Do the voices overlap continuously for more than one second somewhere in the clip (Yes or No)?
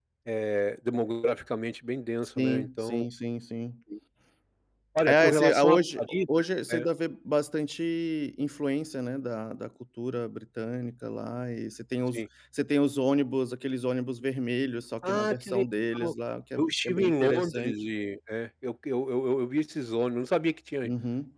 Yes